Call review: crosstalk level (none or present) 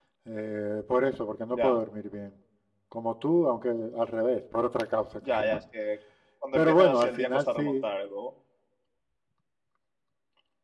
present